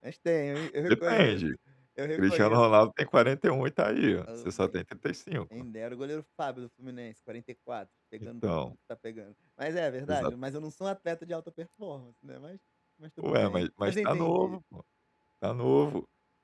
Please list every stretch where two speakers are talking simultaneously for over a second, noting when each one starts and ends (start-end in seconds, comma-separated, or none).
13.2-14.6